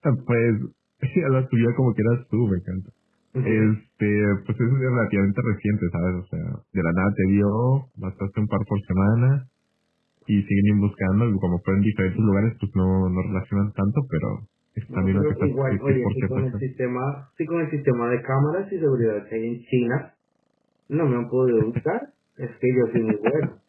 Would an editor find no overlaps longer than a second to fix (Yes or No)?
No